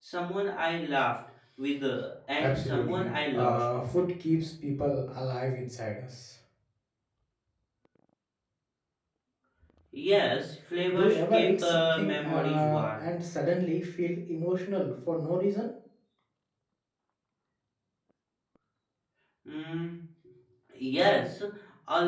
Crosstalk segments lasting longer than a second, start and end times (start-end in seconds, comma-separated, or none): 2.4-3.6, 10.9-13.1